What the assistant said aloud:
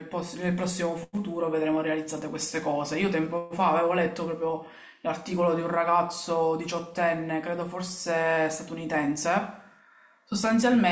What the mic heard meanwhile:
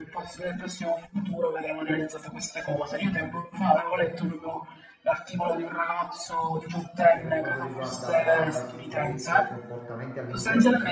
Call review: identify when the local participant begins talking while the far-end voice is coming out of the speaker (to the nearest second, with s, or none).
7 s